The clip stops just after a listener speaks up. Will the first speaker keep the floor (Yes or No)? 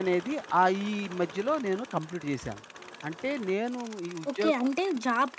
No